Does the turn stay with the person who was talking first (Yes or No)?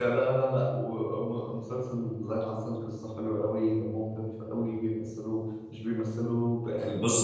Yes